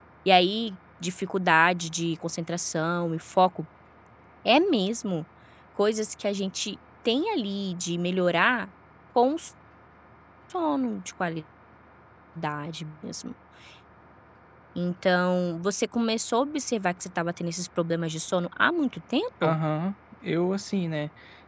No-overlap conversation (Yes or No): Yes